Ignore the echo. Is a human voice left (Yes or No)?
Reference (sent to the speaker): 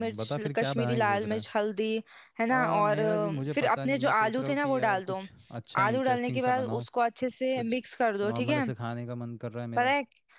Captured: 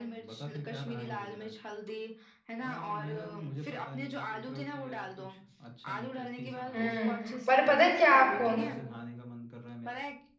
Yes